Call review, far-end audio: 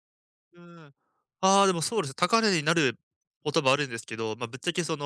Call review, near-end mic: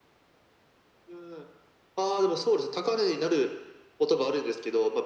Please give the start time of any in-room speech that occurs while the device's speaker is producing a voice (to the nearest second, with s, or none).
none